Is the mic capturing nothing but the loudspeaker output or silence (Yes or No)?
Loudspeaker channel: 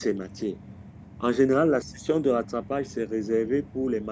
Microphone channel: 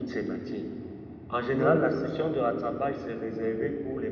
No